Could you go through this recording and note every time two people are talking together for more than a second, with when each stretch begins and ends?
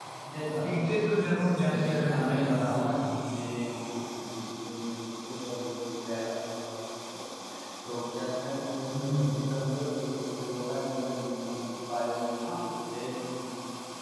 1.6-3.0

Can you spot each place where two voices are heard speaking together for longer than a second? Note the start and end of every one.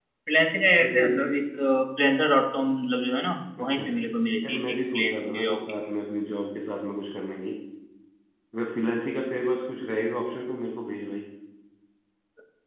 4.5-5.7

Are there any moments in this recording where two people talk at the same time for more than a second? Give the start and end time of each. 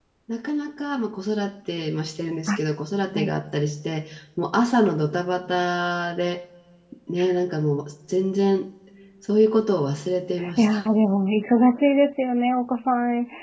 none

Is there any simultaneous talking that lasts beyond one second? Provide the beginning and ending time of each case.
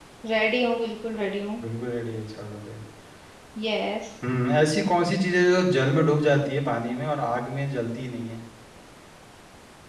none

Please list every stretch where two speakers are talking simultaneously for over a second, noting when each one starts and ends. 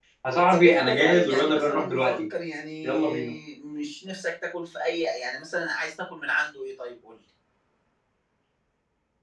0.5-2.2

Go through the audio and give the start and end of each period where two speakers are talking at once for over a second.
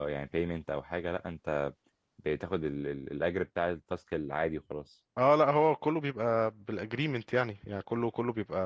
none

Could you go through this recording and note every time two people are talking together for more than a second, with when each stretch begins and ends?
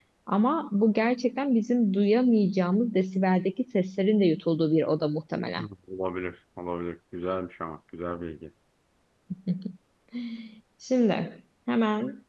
none

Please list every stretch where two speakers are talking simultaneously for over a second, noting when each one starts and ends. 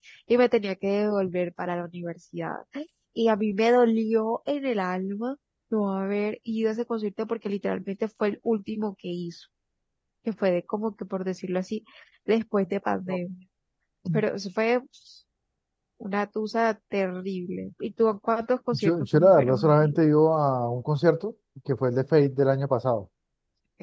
18.7-20.0

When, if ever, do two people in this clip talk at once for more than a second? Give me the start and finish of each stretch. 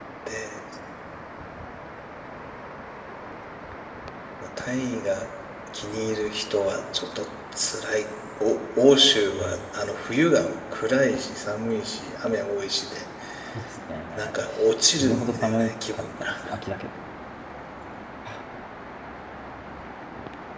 15.0-16.3

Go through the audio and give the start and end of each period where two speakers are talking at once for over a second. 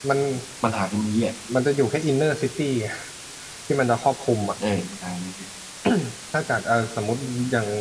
none

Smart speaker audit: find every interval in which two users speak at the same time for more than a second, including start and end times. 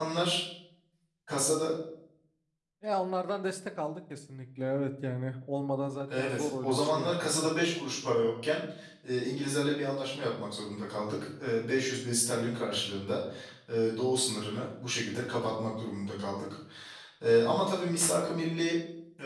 6.2-7.5

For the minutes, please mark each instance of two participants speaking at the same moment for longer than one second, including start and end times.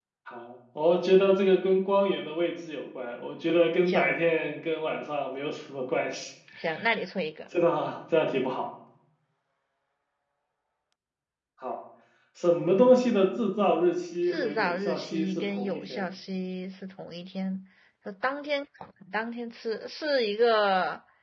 14.3-16.0

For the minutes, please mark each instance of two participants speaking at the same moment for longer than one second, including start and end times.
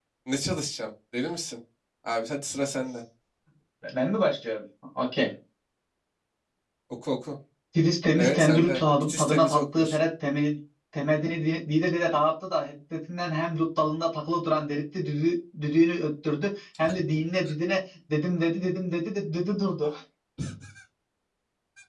8.2-10.0

